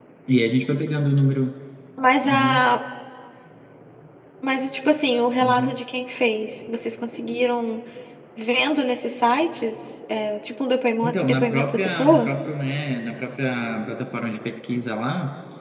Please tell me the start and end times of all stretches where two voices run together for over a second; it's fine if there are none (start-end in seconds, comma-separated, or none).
11.0-12.3